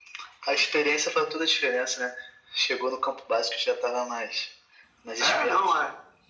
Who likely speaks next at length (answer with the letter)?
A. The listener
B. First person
A